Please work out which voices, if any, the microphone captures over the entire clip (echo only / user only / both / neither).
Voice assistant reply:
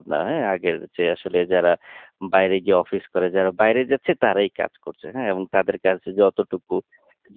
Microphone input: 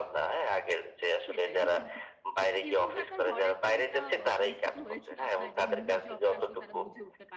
both